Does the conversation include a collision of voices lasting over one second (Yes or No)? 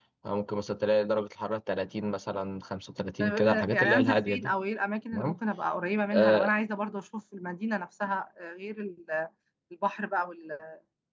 Yes